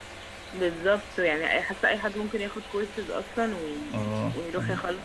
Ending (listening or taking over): taking over